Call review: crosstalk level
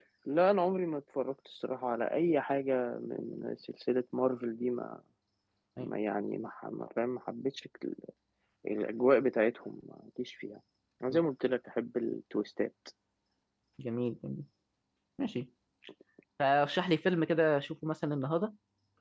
none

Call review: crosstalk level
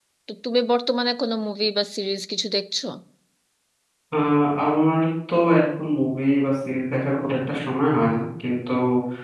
none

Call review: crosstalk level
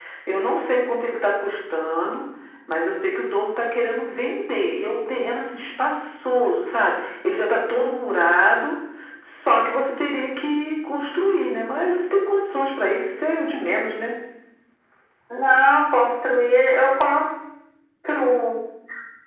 none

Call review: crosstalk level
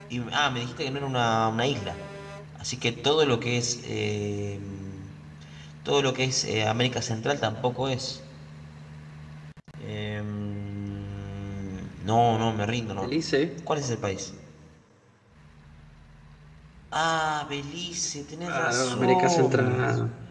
present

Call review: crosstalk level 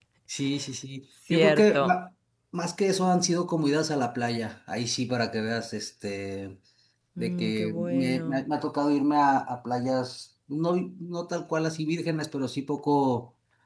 present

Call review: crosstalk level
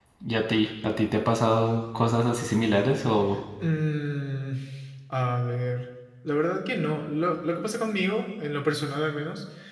none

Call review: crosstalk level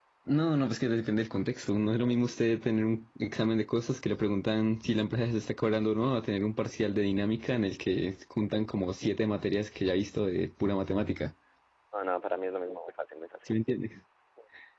none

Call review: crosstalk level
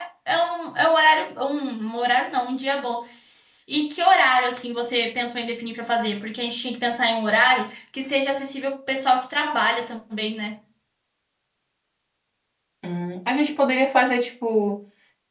none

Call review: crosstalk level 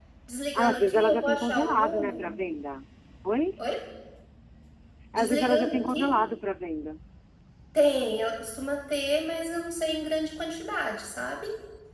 present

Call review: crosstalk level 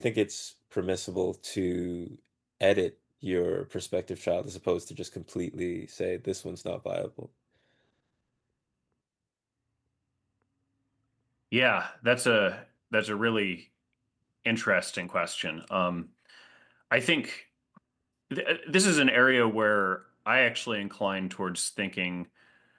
none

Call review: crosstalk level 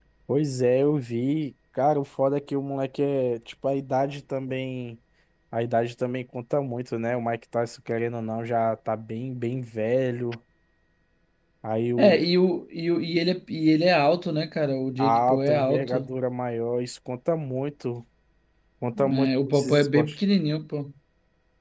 present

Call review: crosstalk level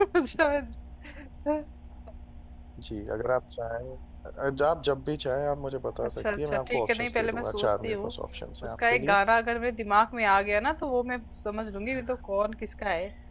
present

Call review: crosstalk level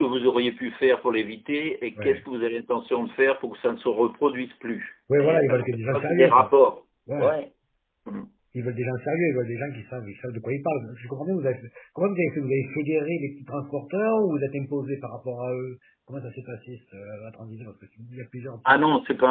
present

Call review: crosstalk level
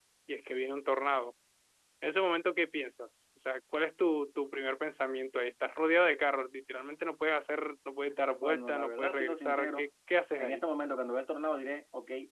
present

